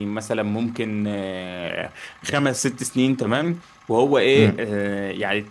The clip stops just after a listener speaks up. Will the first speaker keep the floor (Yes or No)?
Yes